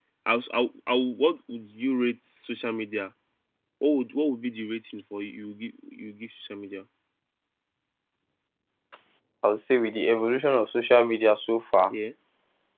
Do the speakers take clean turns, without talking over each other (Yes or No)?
Yes